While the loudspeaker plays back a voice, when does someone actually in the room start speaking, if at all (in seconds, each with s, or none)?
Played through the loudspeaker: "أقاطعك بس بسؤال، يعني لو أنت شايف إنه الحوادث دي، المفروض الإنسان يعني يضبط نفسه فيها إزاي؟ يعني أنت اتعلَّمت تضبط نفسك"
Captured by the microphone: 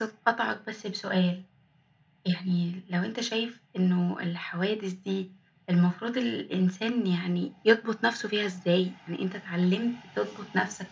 none